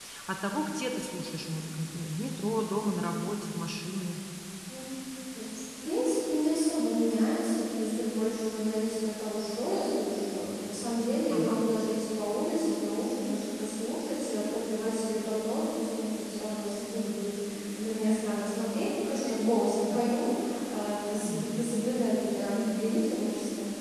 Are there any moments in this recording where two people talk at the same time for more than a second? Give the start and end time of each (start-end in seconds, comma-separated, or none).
none